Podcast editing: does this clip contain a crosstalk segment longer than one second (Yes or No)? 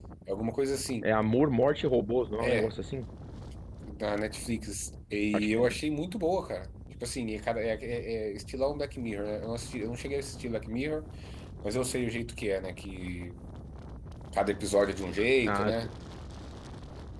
No